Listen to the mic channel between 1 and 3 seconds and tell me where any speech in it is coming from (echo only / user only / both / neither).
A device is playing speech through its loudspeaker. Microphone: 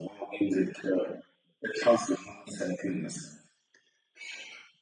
echo only